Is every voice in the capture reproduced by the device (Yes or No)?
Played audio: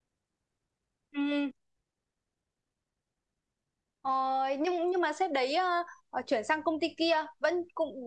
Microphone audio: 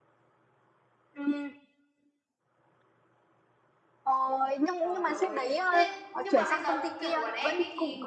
No